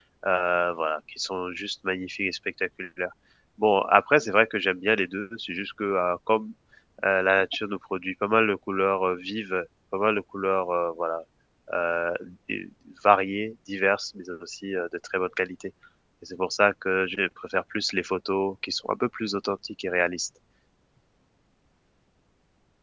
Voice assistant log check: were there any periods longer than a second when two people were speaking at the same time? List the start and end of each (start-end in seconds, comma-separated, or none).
none